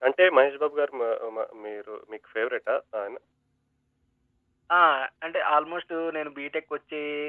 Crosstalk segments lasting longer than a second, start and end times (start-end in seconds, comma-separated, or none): none